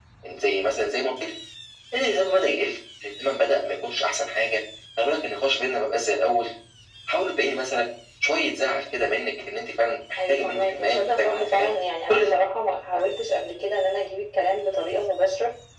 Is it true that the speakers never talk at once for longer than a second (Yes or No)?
No